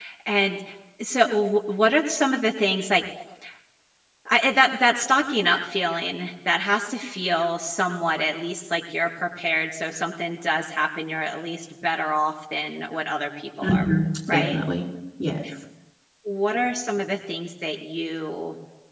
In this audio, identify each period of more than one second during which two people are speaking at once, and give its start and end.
none

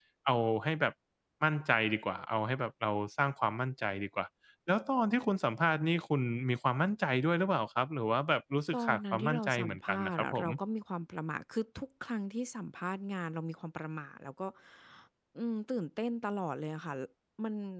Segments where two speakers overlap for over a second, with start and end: 8.7-10.4

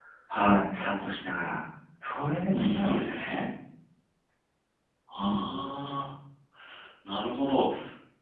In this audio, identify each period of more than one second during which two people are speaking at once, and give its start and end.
2.2-3.5

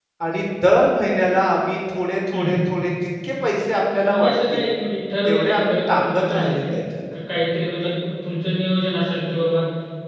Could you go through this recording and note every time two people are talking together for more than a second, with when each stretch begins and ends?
5.2-6.6

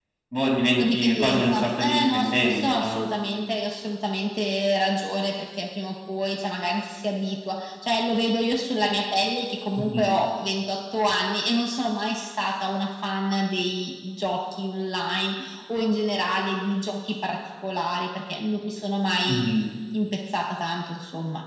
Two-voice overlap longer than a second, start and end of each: 0.8-3.1

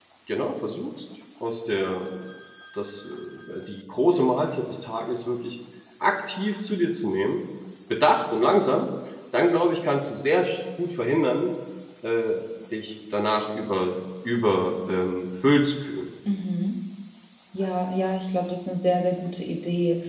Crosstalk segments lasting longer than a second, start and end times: none

